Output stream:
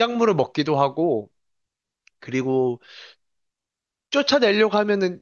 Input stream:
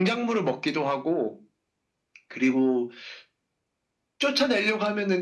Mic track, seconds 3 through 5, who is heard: echo only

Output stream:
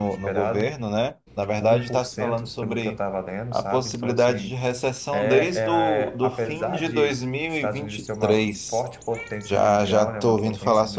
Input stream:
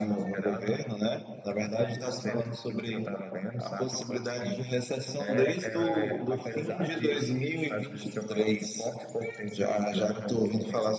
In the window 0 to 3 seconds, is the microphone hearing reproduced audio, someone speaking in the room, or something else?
echo only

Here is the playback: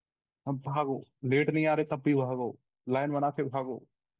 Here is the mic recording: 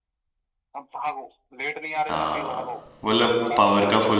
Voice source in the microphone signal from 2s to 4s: both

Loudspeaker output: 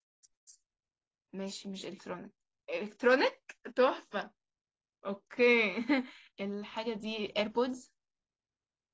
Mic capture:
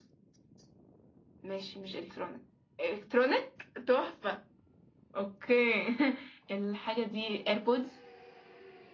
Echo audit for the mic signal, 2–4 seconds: echo only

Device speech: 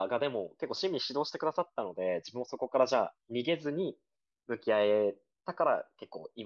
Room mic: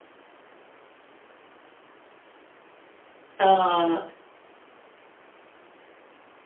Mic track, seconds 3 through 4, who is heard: user only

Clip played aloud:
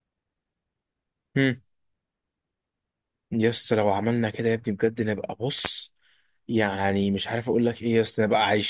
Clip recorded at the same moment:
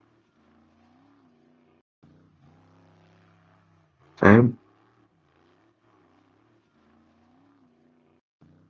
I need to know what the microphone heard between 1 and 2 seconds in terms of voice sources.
neither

